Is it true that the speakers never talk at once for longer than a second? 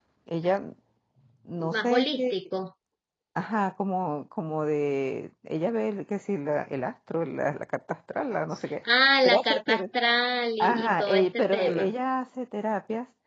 No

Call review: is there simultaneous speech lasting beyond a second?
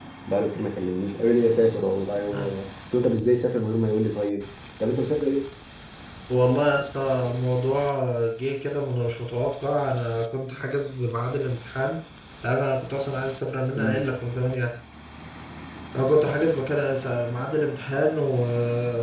No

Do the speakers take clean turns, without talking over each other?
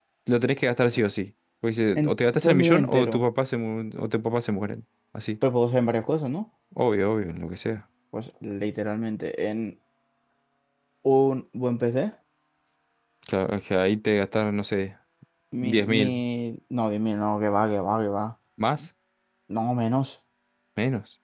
No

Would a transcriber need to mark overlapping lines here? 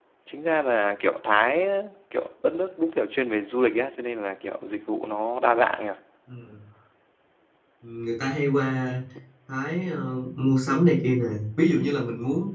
No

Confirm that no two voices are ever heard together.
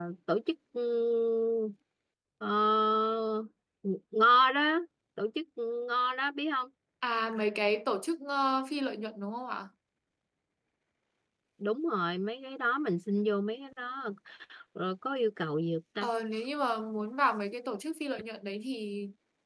Yes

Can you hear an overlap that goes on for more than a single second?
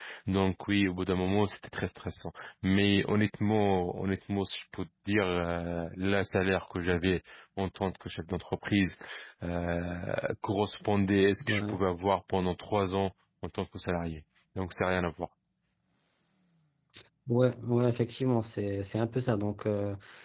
No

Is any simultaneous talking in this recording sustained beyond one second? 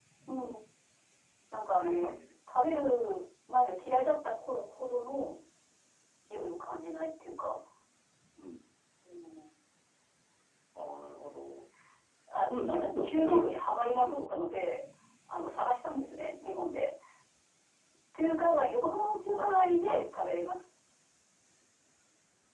Yes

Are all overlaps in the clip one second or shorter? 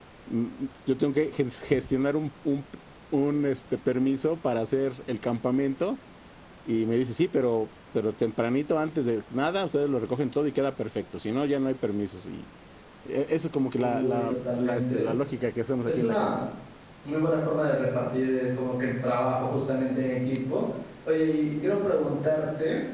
No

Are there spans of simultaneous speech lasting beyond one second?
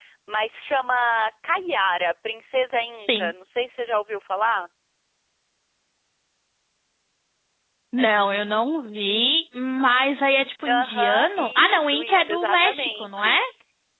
Yes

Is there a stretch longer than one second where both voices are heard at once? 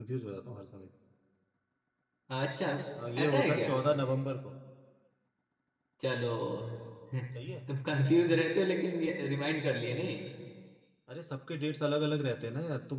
No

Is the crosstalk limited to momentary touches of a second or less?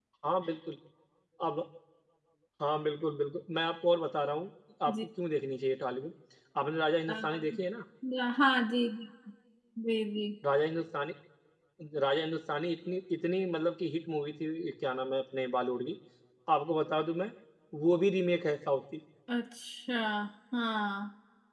Yes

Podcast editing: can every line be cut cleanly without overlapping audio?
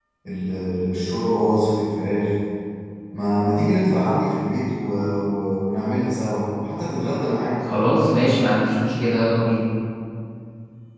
Yes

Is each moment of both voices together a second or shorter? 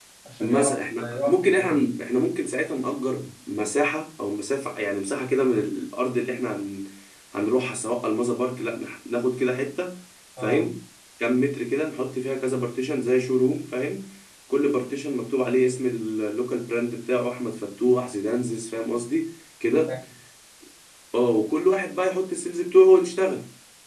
No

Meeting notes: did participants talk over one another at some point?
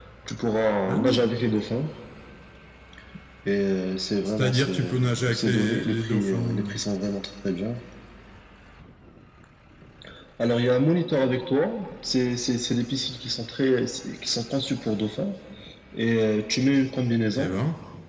Yes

